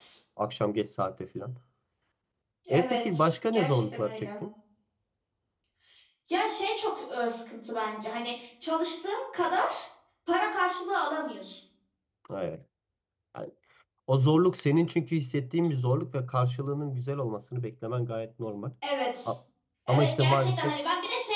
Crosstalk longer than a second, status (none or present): present